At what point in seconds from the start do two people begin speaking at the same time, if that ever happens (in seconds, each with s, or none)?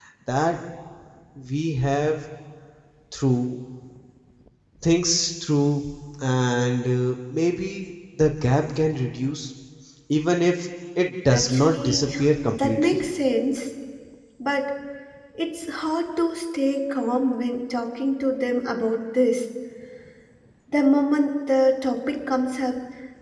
11.3 s